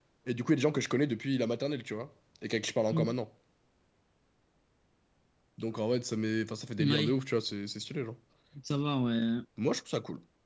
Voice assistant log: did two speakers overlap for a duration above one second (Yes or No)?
No